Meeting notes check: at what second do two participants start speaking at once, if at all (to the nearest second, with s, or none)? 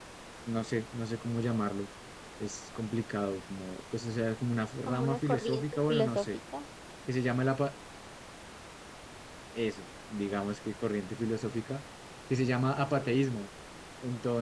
5 s